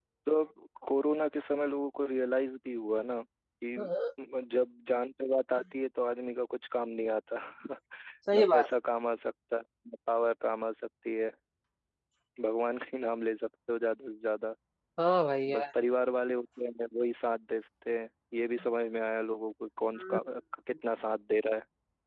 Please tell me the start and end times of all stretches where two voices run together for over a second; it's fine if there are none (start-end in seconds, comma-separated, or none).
none